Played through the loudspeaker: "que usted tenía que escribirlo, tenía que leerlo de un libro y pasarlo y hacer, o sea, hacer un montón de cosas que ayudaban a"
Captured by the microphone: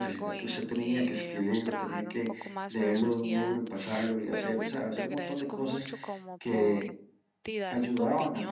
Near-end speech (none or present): present